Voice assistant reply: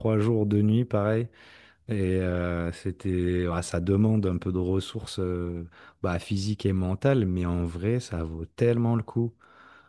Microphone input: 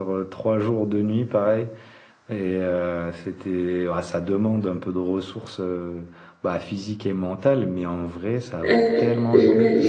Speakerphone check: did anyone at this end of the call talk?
Yes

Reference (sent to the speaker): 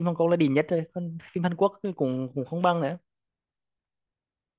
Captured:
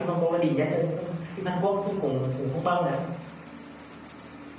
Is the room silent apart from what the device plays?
Yes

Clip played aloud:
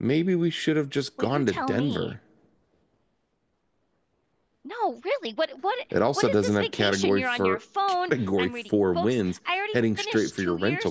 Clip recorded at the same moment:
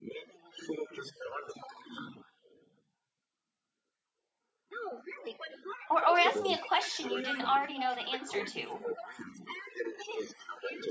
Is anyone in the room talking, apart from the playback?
Yes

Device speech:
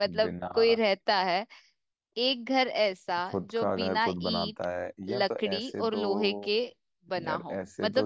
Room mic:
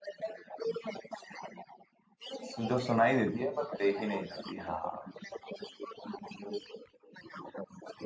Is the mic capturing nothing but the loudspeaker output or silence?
No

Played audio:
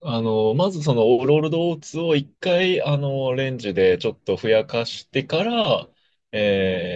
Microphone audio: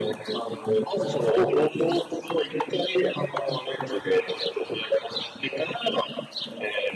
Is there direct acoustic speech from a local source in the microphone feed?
No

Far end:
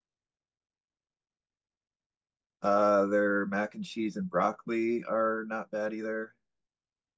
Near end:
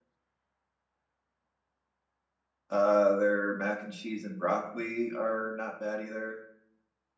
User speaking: No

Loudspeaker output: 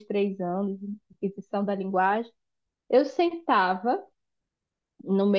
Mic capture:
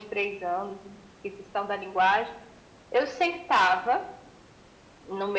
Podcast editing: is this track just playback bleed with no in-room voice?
Yes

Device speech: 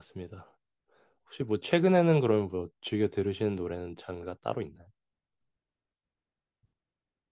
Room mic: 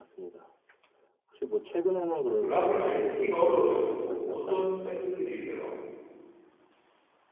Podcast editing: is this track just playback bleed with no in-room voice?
No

